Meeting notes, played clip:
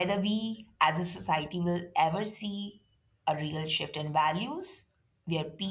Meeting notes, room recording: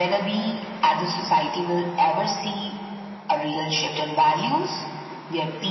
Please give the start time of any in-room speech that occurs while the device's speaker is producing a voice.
none

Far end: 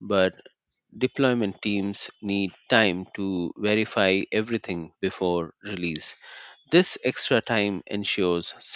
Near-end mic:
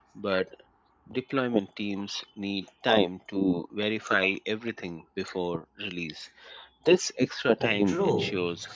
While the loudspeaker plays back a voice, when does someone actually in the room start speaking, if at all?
7.6 s

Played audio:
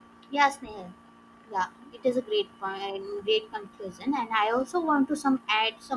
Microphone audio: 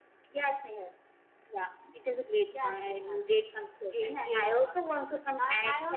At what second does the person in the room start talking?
2.5 s

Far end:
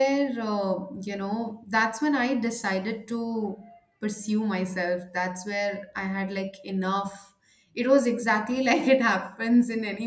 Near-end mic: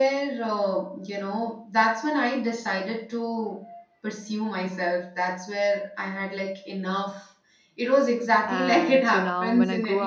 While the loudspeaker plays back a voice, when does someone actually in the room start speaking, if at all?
8.5 s

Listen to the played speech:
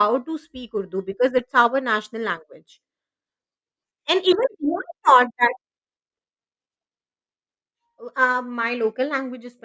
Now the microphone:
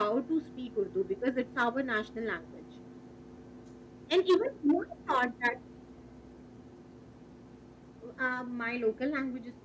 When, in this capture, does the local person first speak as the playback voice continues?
none

